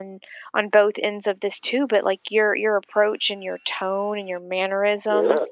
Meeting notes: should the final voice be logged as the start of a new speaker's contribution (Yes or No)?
Yes